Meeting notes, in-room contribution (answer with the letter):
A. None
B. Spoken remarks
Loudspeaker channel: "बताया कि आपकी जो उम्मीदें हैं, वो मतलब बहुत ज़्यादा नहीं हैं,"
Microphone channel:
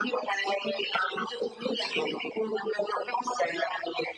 A